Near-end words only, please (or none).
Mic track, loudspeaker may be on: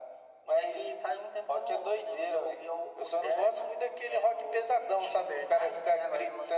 none